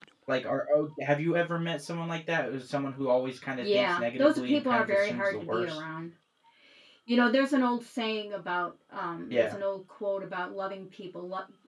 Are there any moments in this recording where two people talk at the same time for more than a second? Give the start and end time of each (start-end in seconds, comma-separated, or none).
3.6-5.8